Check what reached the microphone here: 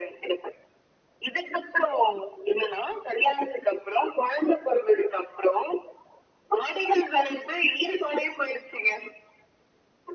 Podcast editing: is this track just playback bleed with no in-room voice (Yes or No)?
Yes